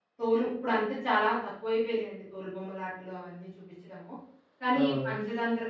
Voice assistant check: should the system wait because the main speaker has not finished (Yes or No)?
Yes